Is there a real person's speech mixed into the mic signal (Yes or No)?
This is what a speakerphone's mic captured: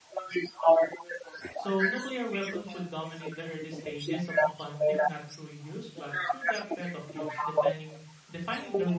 Yes